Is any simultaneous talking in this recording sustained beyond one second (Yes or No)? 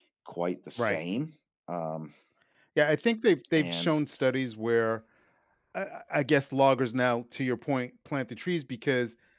No